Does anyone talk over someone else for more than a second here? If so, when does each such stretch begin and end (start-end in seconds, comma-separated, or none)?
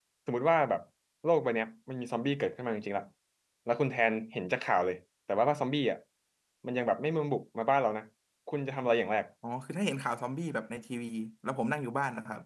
none